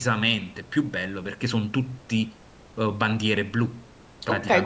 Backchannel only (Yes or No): No